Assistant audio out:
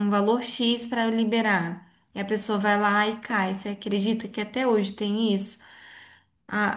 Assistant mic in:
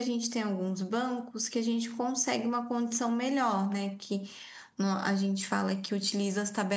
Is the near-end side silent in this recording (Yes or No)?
No